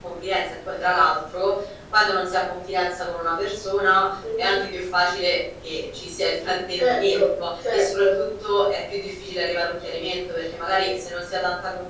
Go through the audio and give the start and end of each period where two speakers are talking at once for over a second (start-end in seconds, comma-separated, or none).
6.8-8.2